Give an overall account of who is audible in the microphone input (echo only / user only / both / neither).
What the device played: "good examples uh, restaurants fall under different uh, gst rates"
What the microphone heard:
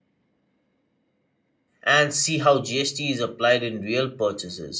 user only